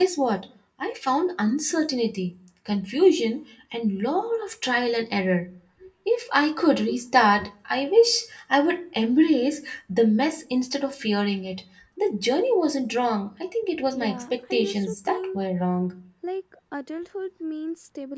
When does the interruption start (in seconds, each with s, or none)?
13.9 s